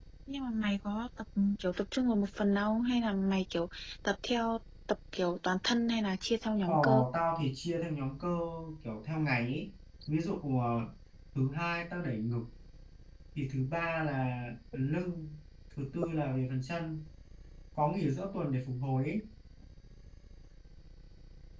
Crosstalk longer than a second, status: none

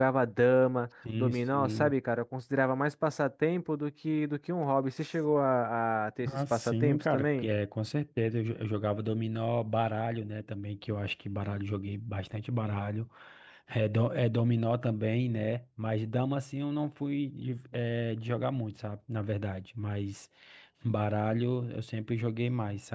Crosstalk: present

